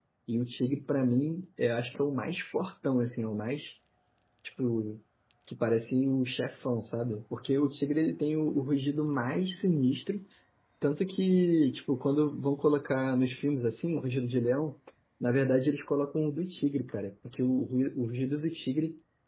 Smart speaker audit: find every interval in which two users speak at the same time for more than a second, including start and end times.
none

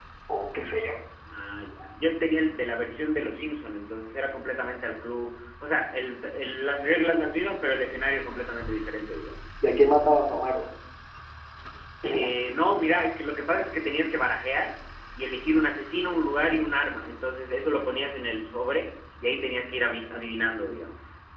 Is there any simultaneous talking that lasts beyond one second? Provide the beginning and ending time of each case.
none

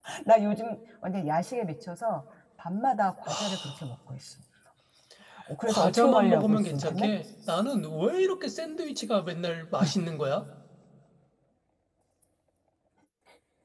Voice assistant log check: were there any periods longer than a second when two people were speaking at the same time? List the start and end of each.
5.7-7.1

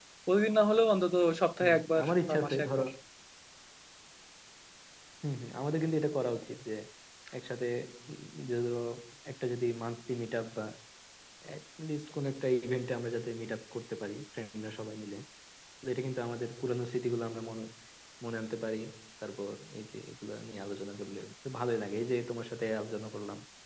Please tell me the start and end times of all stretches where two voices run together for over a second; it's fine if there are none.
1.6-2.8

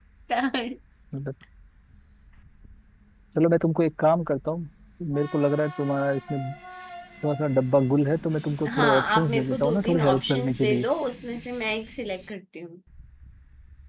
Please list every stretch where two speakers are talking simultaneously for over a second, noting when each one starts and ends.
8.8-10.8

